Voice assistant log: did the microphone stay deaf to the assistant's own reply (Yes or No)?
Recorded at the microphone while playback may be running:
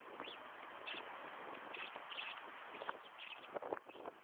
Yes